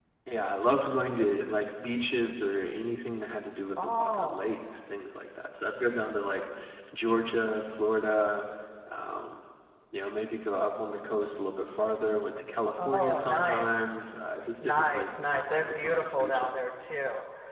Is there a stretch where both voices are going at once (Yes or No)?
Yes